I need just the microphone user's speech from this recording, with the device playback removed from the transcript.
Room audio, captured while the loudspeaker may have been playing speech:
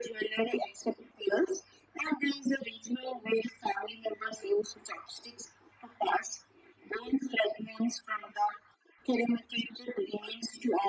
none

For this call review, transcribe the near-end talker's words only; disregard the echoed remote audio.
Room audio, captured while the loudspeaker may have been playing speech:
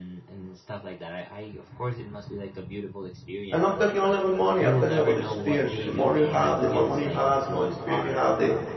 and I'm talking only about money, I'm talking about experiences. The more you have, the more money you have, the more experience you have, the

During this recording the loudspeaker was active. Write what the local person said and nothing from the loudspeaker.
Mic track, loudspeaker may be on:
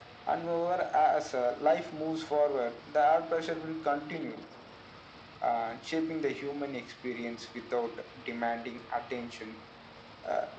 none

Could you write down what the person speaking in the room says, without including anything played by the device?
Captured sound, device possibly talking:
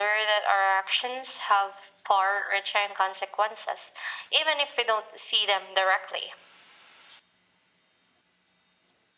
none

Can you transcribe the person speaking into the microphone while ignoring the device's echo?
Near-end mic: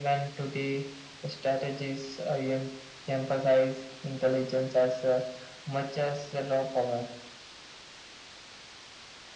none

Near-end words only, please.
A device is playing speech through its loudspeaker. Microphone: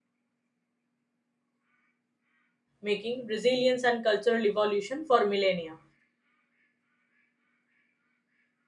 making, resilience, and cultural evolution for millennia.

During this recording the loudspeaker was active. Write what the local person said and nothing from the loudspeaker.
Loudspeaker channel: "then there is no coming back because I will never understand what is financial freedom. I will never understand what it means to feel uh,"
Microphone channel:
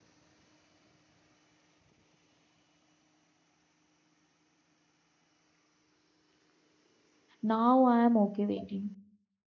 now i am okay waiting

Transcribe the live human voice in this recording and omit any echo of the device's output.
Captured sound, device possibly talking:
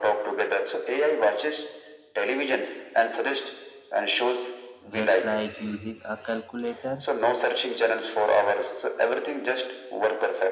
just like using a calculator

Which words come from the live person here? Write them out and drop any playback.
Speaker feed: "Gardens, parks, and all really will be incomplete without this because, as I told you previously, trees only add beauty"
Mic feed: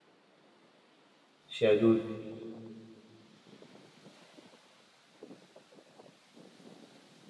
Shadud.

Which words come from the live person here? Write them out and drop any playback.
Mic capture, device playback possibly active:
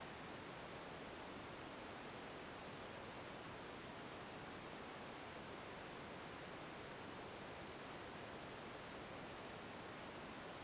none

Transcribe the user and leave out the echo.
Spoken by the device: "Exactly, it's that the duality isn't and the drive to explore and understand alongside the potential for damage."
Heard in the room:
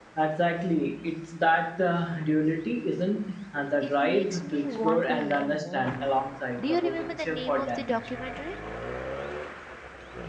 It makes me want to learn more. Do you remember the name of the documentary?

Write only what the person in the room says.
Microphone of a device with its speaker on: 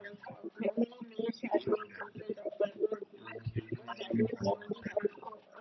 none

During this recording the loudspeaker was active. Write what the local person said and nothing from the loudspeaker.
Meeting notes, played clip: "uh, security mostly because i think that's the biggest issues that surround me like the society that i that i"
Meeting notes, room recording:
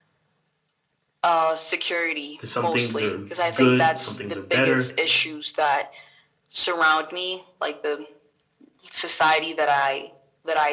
Some things are good, some things are better.

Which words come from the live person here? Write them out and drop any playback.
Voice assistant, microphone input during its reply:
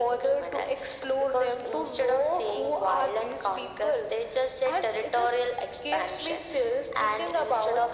none

